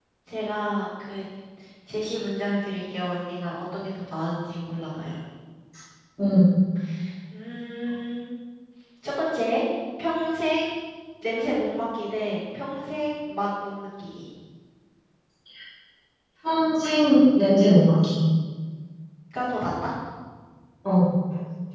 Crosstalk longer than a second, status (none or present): none